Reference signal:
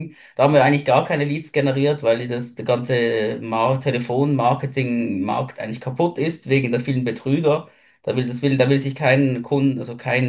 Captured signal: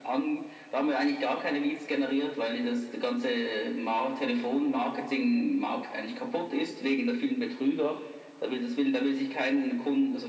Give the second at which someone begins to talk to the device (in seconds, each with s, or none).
none